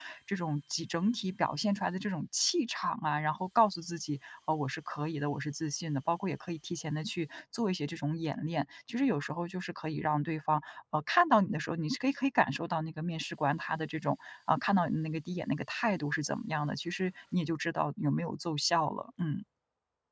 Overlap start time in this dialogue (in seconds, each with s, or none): none